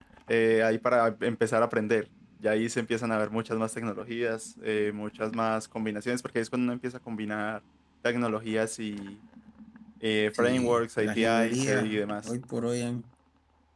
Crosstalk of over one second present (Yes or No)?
Yes